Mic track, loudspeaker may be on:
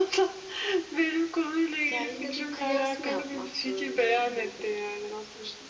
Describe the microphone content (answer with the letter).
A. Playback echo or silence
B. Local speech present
B